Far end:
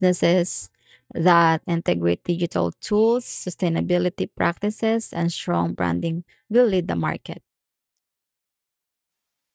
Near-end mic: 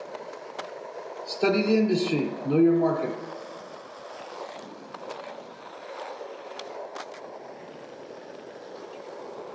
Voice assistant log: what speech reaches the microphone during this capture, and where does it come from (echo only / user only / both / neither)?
user only